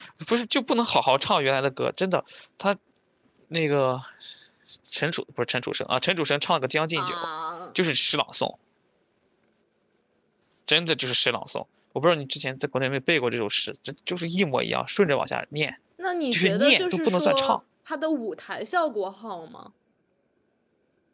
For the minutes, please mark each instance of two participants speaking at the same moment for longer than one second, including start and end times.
16.3-17.6

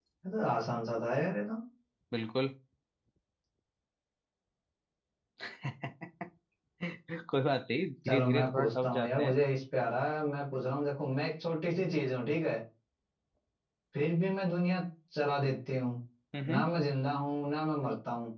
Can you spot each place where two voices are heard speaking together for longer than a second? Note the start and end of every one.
8.1-9.3

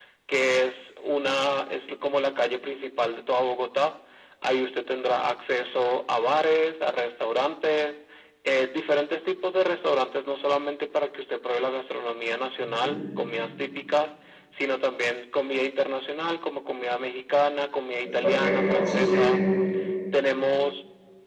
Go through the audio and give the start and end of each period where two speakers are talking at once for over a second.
18.1-19.4

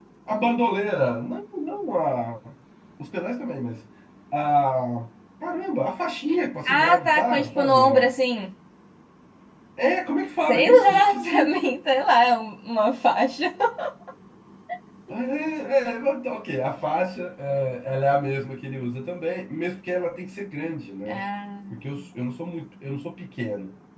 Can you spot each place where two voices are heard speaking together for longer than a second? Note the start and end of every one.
6.7-8.1, 10.4-11.6

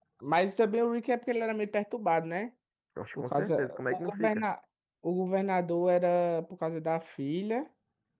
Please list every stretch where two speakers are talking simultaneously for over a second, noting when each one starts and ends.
3.2-4.4

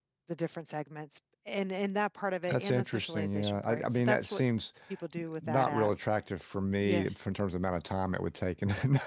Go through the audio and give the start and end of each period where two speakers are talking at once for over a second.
2.5-4.4

